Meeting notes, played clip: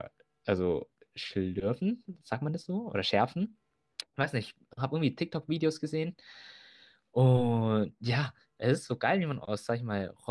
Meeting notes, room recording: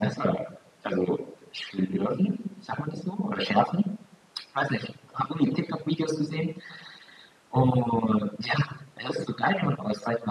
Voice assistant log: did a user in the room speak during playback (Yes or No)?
No